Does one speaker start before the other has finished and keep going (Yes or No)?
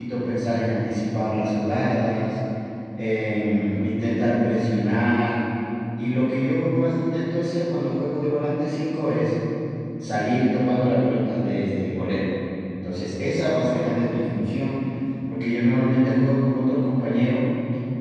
No